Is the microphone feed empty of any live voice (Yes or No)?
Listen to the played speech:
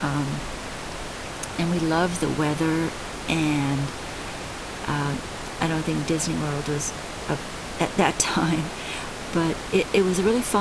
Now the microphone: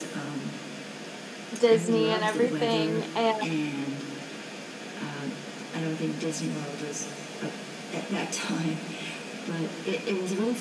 No